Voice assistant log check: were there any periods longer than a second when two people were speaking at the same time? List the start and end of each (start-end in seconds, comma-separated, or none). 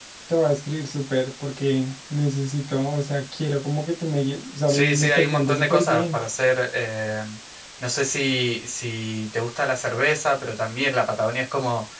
4.7-6.2